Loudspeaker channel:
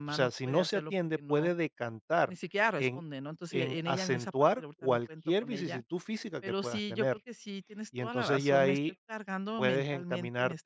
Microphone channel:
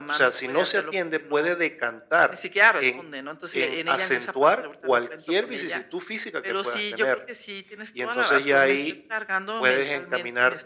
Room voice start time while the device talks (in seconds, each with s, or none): none